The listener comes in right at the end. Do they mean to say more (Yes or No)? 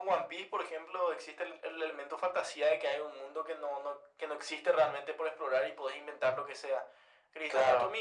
No